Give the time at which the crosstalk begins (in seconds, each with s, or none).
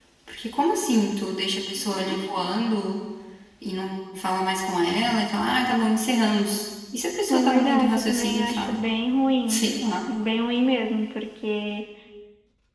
7.3 s